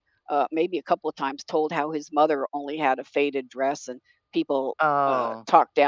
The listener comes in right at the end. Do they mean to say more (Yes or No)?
No